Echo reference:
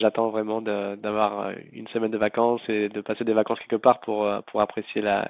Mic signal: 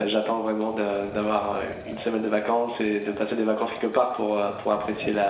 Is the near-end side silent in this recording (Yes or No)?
Yes